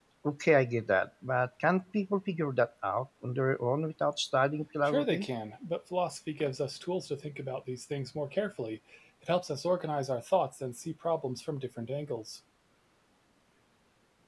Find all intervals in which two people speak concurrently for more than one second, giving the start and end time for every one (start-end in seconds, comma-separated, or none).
none